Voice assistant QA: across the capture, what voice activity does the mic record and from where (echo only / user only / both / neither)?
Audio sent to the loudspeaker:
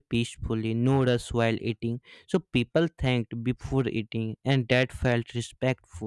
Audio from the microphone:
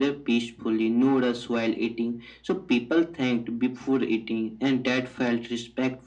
echo only